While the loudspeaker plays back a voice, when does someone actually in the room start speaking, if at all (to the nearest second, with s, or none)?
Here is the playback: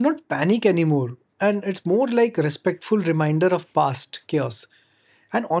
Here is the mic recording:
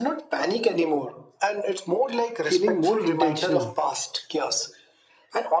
2 s